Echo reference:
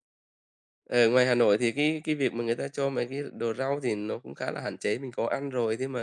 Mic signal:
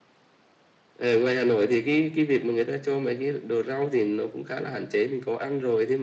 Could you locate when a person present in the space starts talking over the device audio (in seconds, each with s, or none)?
none